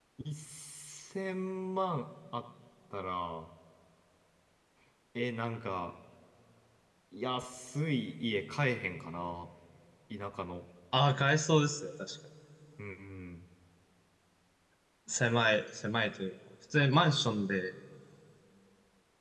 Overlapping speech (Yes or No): No